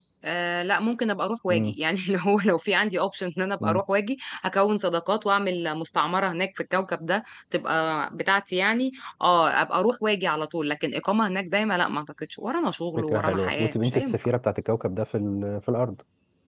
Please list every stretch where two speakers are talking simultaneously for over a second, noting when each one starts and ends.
13.0-14.2

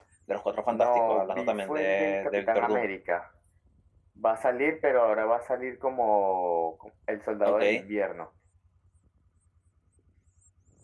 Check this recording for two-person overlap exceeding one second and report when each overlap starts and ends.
0.7-2.9

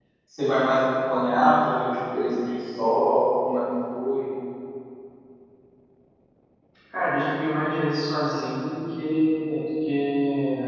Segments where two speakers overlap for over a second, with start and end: none

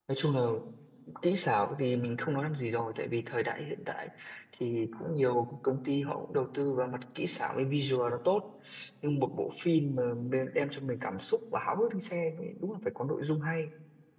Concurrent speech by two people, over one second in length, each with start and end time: none

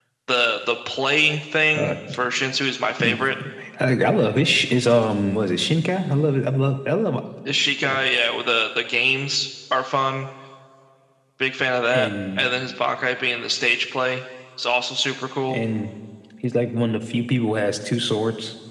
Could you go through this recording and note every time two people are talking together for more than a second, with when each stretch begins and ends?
none

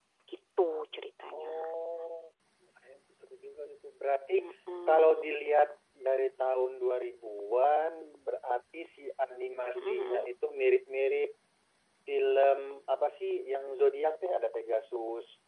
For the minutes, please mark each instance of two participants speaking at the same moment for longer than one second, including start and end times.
none

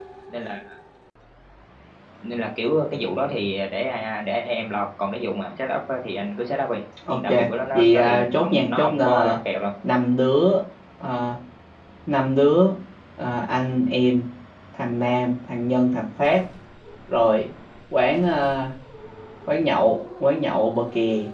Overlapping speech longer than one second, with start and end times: 7.7-9.4

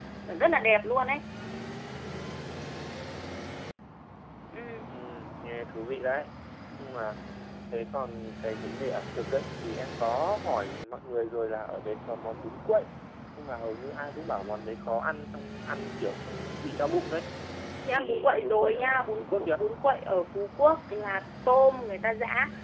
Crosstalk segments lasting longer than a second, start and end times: 17.9-19.6

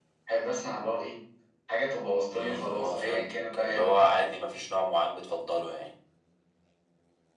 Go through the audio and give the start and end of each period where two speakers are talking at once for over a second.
2.3-4.3

